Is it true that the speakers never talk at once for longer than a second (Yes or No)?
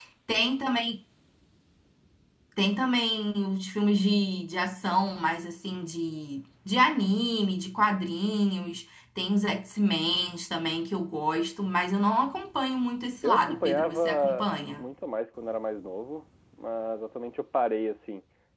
No